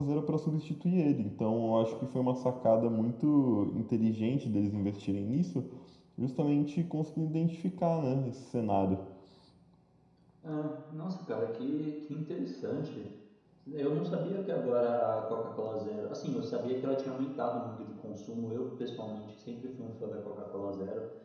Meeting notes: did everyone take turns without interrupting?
Yes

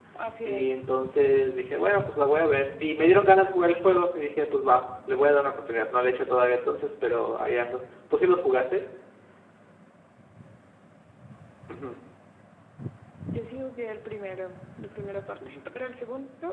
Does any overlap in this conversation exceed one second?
No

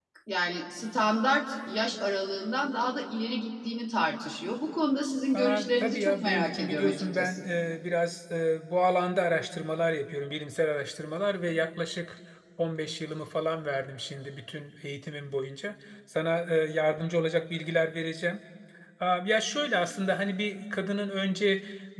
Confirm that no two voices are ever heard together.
No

